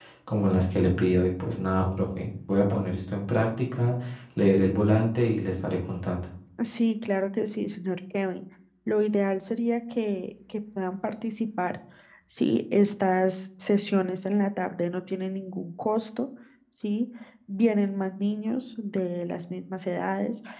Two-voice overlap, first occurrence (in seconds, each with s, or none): none